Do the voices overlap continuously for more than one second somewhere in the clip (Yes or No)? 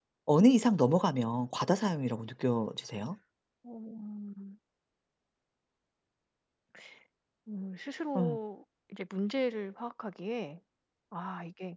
No